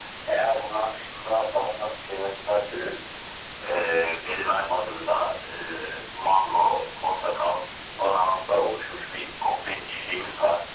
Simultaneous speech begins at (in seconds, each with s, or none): none